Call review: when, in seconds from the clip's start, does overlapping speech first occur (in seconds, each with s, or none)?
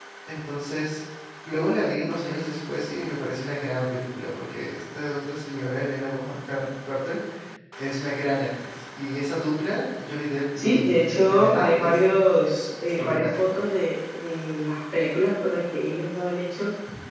10.6 s